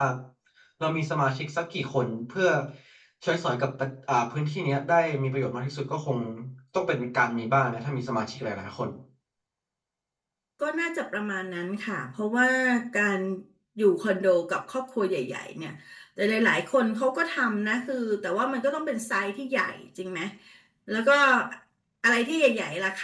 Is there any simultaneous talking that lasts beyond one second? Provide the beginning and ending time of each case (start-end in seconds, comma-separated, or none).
none